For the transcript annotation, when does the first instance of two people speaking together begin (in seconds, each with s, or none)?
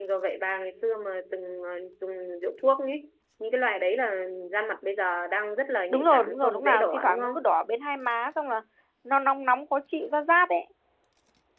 5.9 s